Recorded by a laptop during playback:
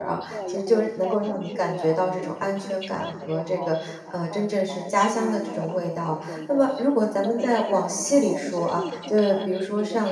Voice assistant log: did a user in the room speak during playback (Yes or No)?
Yes